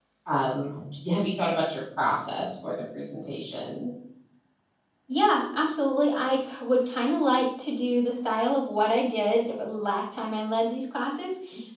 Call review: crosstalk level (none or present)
none